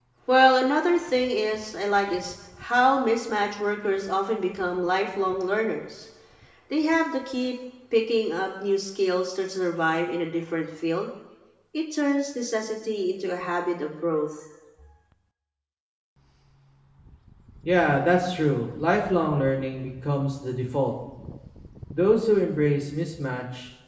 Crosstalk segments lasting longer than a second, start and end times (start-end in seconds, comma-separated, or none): none